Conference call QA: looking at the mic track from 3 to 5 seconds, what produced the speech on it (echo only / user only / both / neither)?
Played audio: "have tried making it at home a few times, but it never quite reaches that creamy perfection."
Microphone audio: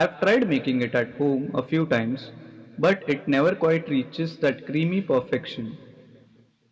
echo only